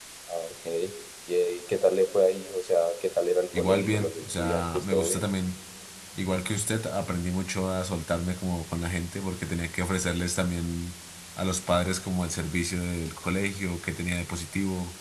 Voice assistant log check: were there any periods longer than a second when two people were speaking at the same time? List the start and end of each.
3.6-5.2

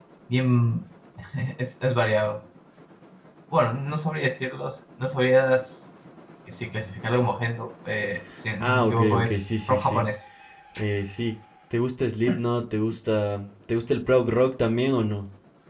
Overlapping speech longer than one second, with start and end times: 8.6-10.0

